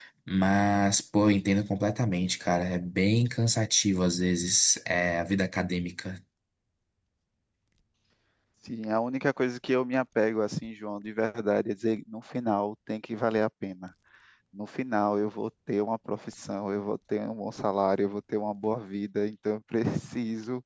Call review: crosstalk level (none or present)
none